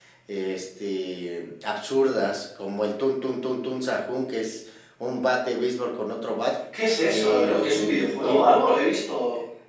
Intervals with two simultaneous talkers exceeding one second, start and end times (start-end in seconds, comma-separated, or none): 7.1-8.8